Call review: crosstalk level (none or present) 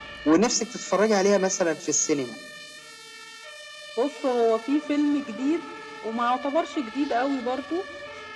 none